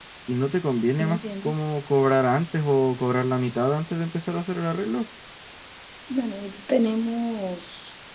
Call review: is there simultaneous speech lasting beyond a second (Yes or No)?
No